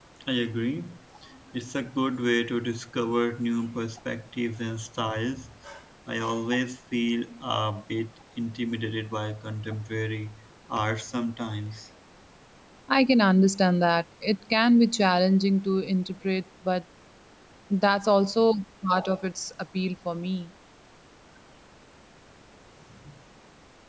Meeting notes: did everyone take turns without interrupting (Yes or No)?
Yes